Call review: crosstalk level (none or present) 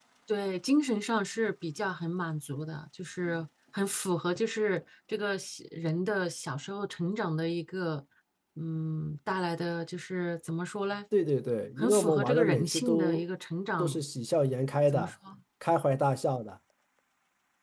present